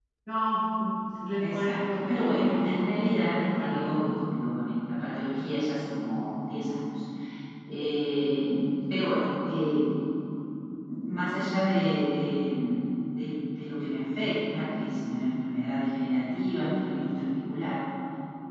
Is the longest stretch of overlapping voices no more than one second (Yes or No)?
No